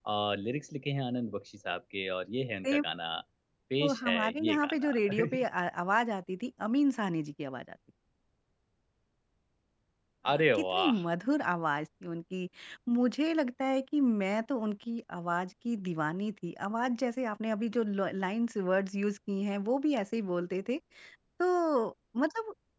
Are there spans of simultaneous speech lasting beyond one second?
Yes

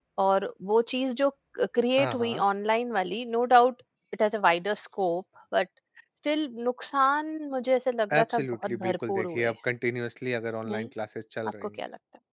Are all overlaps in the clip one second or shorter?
No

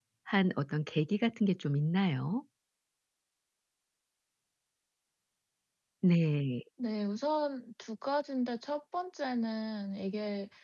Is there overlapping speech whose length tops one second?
No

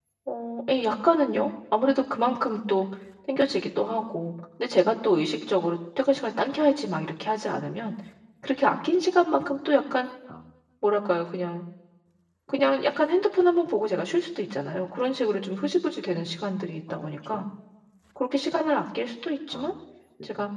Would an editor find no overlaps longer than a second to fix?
Yes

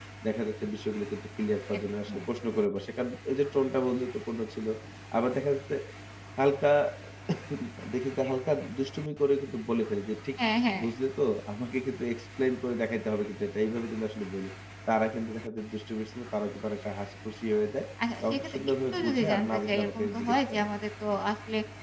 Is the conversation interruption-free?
No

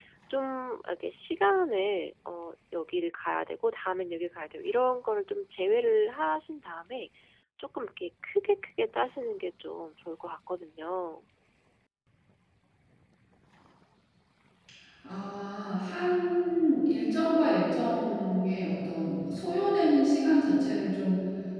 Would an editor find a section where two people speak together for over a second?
No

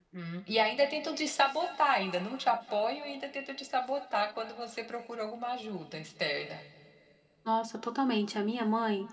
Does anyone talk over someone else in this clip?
No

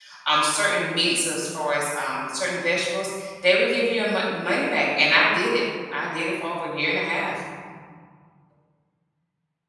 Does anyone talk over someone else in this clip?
No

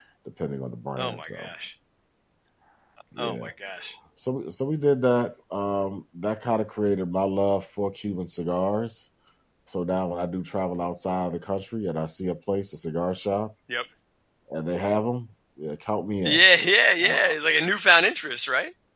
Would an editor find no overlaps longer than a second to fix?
Yes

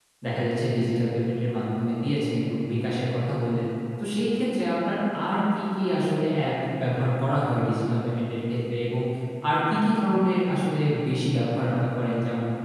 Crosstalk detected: No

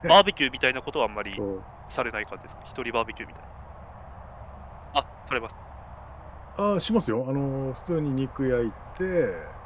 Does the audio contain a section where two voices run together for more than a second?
No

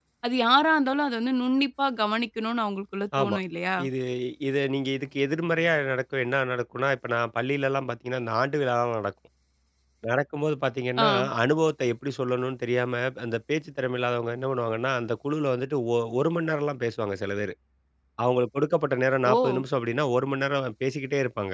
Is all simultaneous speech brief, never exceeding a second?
Yes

